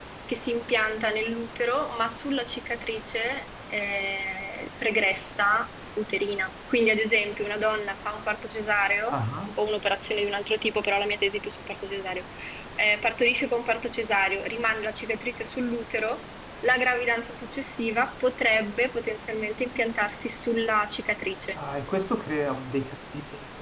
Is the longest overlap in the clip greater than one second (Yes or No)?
No